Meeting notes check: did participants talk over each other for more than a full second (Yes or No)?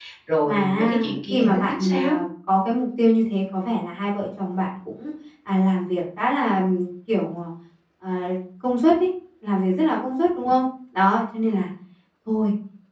Yes